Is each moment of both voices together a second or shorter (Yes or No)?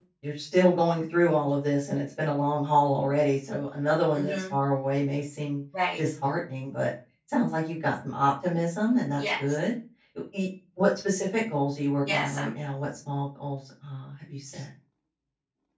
Yes